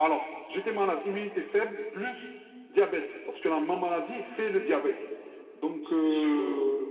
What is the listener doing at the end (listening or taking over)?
listening